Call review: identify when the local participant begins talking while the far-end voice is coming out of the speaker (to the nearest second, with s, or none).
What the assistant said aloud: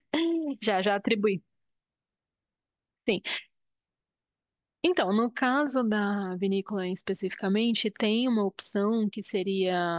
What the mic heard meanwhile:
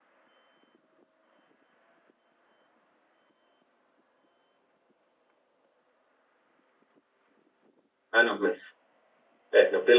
8 s